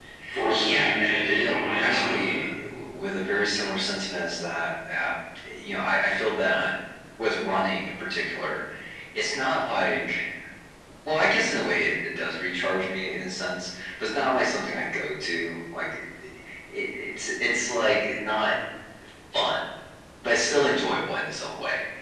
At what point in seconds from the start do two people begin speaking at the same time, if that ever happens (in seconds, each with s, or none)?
0.6 s